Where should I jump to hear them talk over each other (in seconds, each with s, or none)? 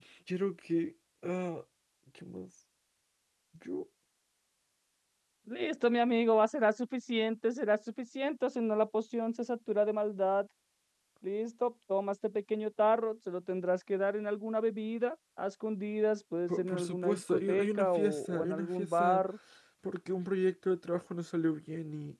16.5 s